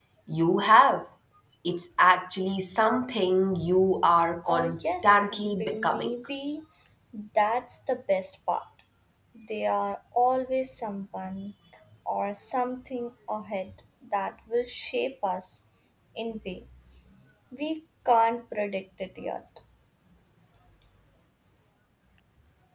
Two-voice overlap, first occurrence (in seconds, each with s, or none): 4.5 s